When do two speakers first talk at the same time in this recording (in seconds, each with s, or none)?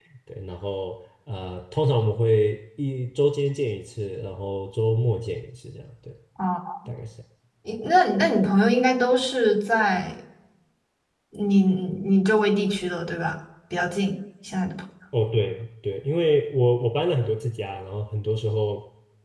none